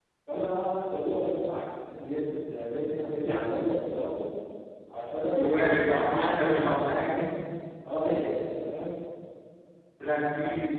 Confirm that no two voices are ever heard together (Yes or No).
No